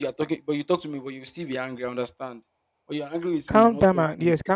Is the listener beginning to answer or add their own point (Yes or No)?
Yes